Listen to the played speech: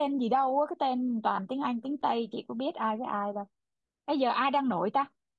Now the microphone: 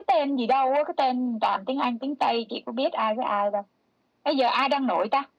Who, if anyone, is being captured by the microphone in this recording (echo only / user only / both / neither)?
echo only